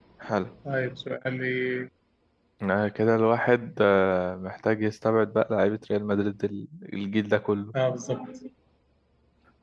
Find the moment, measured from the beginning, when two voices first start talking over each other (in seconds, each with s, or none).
none